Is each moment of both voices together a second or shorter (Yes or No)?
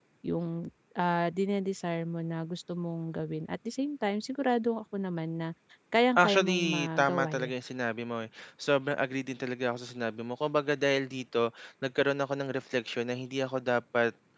No